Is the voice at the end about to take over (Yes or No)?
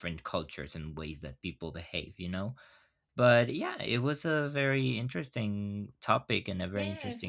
Yes